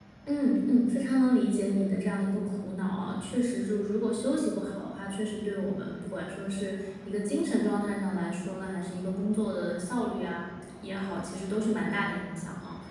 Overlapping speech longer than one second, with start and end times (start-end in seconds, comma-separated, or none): none